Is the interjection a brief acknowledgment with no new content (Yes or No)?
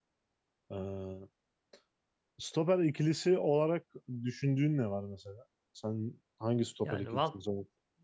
No